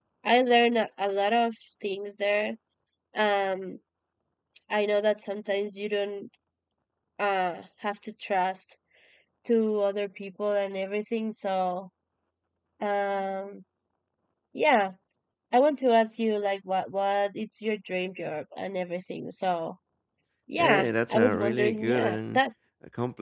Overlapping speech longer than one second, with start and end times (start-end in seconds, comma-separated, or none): 20.6-22.4